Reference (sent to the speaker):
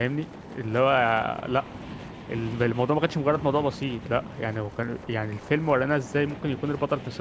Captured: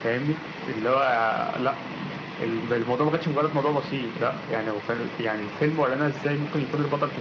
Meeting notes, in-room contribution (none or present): none